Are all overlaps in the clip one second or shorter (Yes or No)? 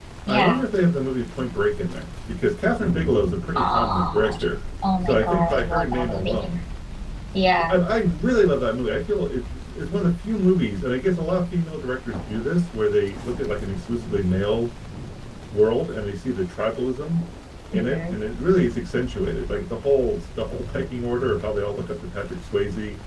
No